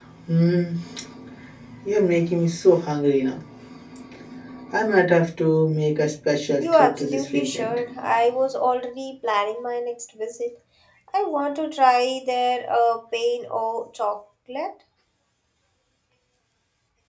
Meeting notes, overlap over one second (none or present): present